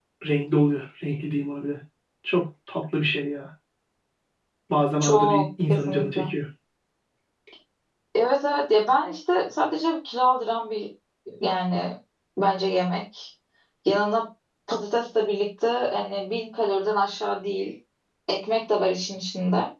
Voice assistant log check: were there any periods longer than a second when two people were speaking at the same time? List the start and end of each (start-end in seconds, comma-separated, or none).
5.0-6.2